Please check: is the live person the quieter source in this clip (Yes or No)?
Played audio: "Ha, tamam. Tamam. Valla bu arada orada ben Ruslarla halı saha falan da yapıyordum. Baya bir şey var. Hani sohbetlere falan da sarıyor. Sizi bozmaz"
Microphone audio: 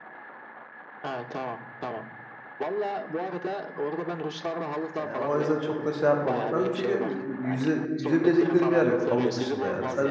No